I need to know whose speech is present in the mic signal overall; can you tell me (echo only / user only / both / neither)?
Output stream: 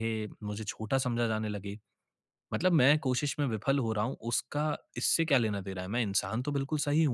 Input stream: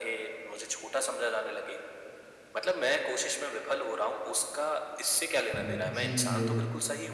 both